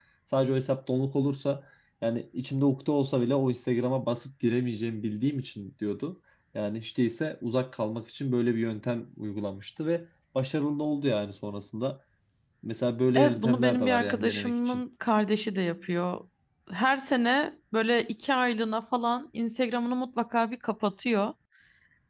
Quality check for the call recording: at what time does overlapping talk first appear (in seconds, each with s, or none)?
13.2 s